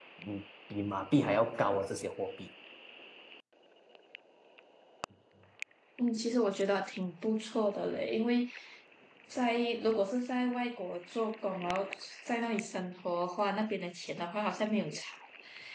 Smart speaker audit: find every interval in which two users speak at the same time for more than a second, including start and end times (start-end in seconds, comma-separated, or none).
none